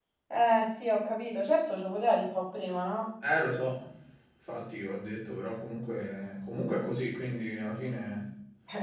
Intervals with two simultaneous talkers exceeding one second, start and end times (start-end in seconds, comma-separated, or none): none